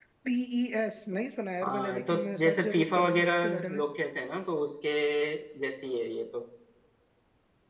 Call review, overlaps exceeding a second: present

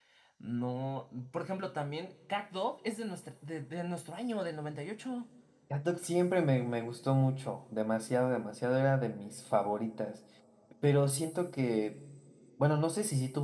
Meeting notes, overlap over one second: none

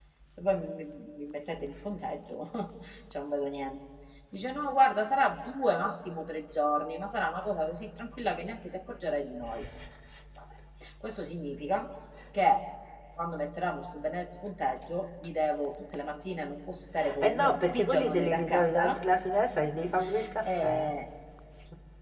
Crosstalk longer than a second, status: present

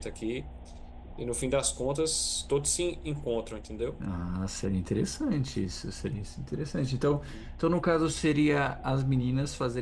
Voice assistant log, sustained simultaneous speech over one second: none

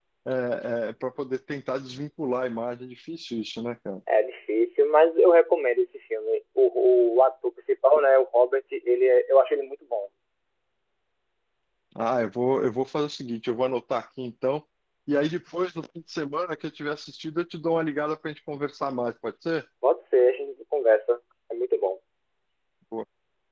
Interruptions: none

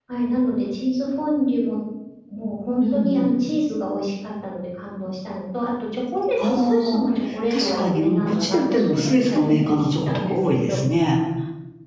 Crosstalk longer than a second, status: present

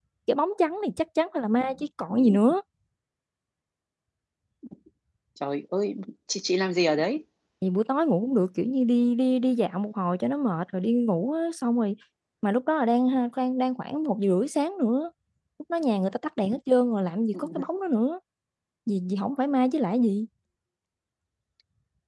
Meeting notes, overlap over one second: none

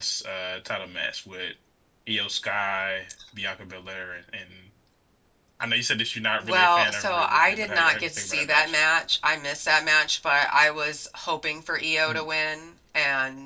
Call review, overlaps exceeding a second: present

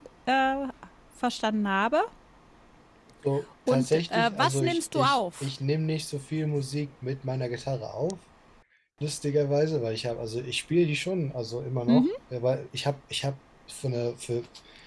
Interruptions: present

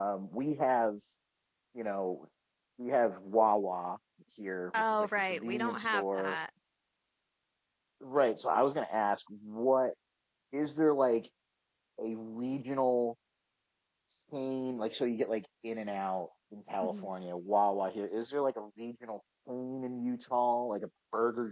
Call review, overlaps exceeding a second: present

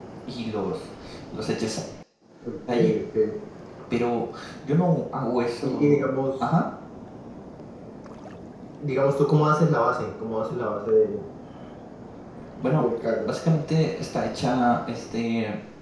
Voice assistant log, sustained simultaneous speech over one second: none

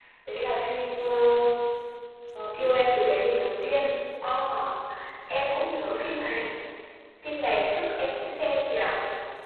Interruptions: none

